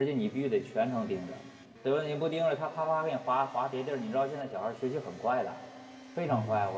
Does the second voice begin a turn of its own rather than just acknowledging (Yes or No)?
No